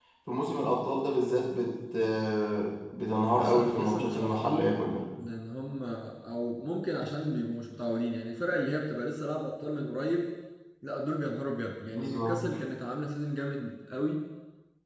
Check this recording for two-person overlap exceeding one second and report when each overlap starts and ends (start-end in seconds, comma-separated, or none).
3.3-4.7